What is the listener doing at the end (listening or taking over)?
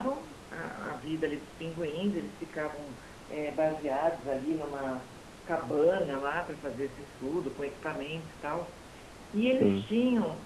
listening